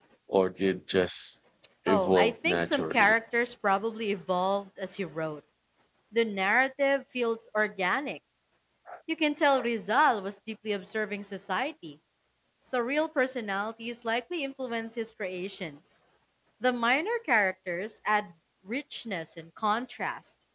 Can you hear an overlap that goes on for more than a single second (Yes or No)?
Yes